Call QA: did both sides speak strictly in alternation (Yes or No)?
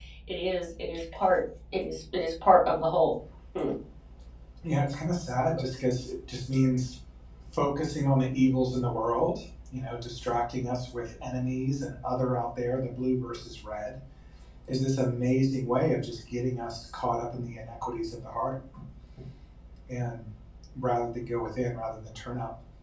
Yes